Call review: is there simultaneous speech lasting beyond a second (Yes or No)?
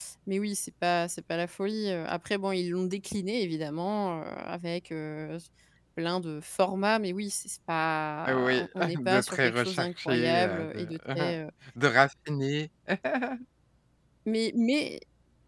Yes